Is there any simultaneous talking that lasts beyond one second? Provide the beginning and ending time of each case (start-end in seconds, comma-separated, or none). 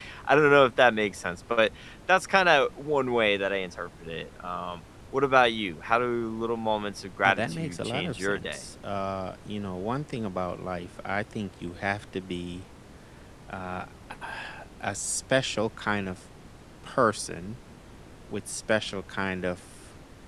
7.2-8.6